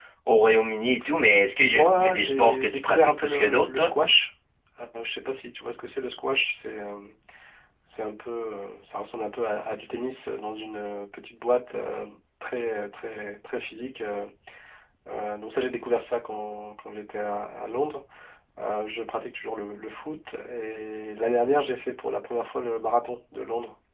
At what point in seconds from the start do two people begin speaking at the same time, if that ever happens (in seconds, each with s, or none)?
1.7 s